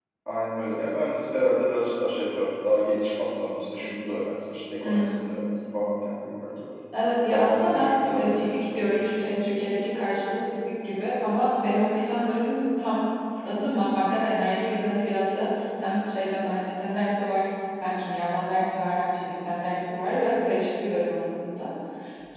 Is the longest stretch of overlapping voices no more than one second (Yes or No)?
No